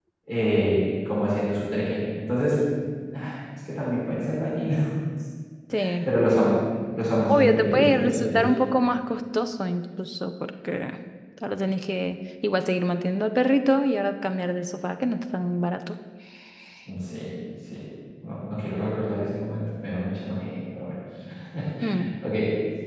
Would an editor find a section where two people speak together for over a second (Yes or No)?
Yes